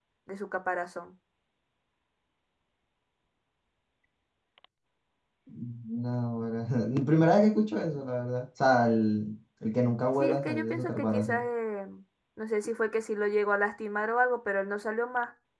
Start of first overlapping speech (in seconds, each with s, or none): 10.2 s